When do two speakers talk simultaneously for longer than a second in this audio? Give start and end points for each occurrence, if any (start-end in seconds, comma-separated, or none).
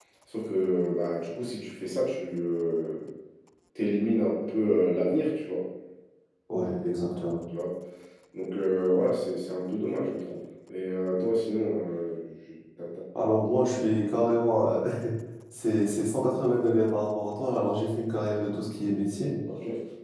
none